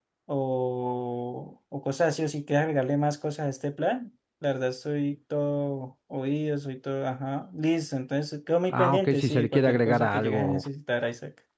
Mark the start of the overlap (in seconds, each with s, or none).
8.7 s